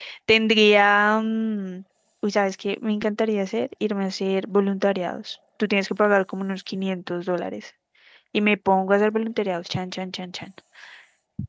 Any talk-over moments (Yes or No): No